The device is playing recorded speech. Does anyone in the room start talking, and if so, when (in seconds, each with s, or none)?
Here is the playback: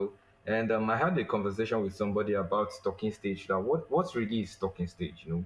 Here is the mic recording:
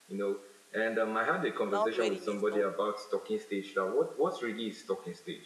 1.7 s